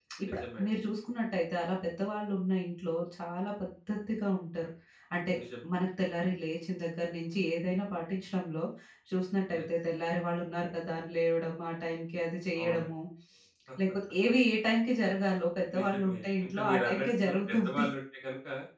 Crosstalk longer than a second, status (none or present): present